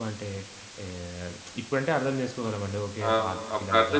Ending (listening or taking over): taking over